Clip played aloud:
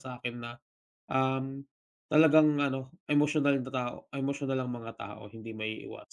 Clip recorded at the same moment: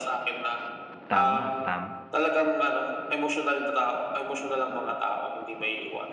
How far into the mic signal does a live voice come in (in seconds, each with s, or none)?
1.1 s